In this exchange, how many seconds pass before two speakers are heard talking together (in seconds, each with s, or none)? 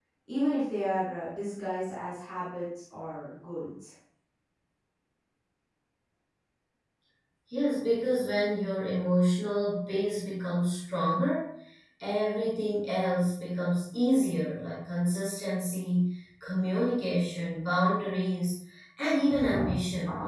none